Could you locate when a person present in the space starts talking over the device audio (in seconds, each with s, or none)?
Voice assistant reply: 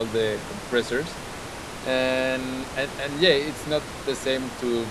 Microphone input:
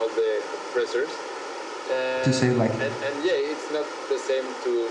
2.2 s